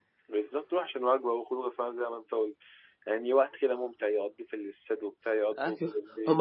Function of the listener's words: taking over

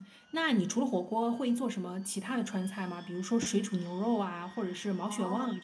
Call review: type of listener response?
taking over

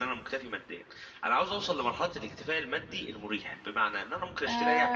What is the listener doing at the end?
taking over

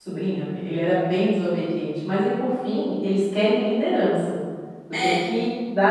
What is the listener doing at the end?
listening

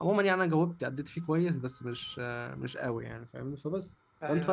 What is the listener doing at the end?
listening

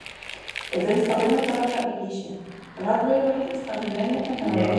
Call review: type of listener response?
listening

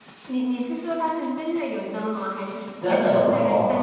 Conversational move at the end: taking over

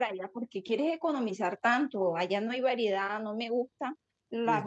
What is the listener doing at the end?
taking over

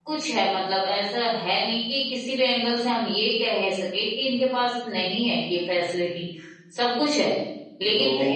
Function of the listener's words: taking over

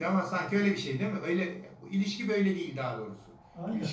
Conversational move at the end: taking over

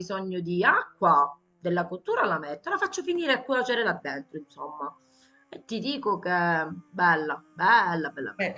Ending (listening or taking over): taking over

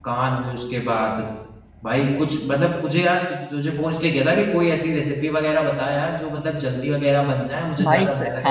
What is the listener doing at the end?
taking over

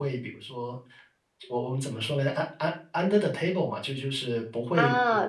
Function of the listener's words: taking over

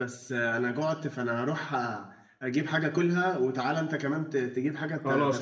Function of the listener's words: taking over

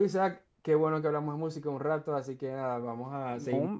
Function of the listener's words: listening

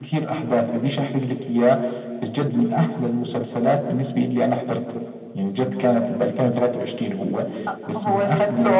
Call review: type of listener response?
taking over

